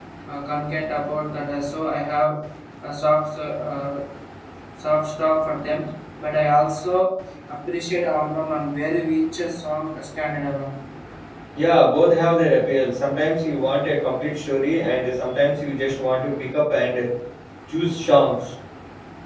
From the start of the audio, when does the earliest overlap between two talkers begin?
none

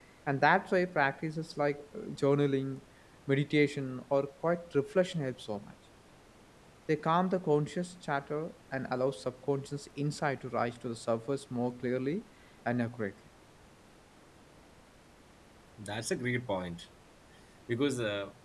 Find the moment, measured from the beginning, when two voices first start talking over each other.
none

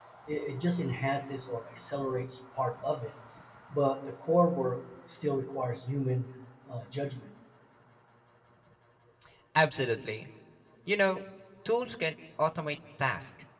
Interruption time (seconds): none

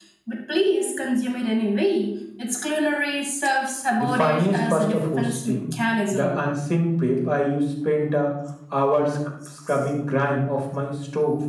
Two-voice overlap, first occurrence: 4 s

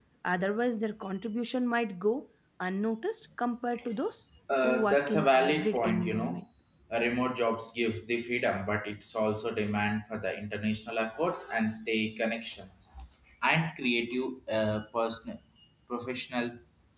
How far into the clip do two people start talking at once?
4 s

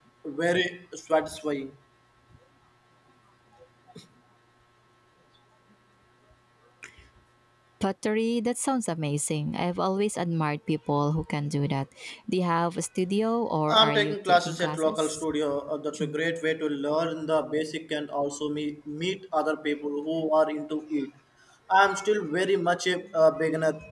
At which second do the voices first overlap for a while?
14 s

